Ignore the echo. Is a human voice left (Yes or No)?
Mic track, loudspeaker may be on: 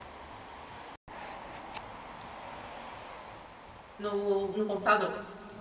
Yes